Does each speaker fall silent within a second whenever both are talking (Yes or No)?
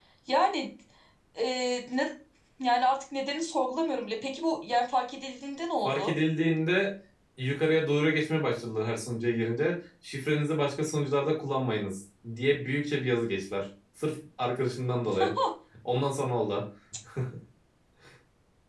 Yes